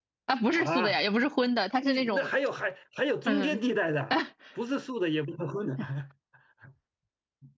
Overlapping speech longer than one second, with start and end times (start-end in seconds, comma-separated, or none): none